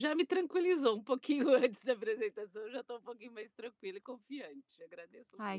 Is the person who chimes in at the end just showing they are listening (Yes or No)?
No